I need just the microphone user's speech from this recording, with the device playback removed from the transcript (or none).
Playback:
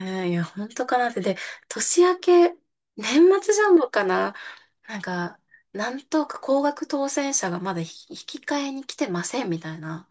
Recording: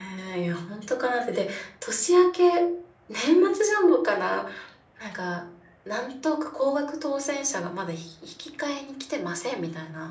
none